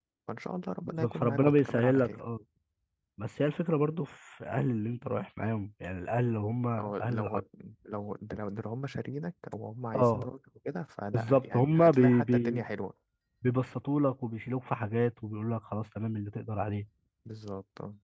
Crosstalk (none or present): present